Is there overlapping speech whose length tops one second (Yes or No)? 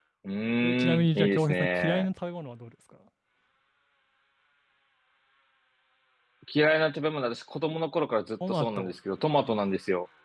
Yes